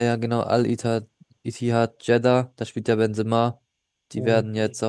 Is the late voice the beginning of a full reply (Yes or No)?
No